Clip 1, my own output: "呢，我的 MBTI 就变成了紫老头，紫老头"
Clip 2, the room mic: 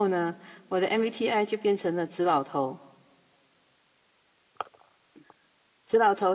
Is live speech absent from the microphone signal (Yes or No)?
Yes